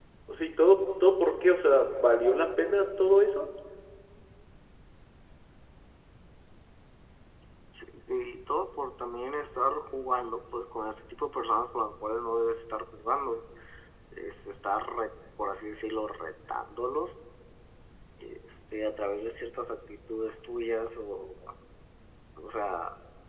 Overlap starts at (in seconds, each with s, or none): none